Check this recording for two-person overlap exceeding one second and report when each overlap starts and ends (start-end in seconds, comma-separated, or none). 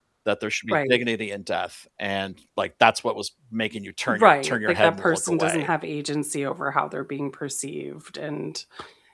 4.1-5.7